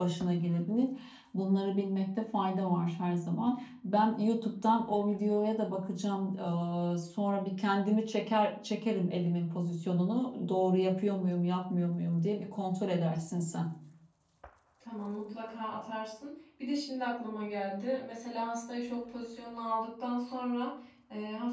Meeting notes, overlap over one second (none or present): none